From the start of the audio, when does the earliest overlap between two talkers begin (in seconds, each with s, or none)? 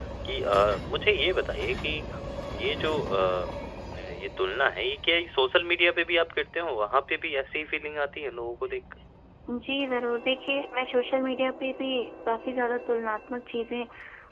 none